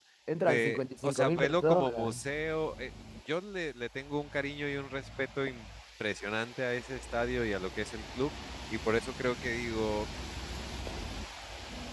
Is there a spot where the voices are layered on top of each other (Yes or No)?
Yes